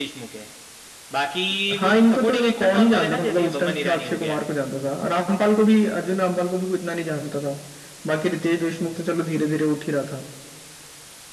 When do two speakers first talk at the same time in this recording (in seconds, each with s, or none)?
1.8 s